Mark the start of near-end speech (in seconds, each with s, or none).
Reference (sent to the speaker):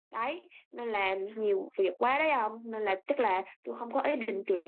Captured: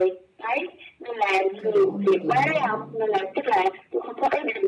1.6 s